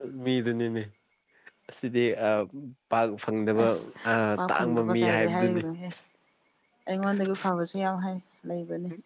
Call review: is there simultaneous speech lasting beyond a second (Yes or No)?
Yes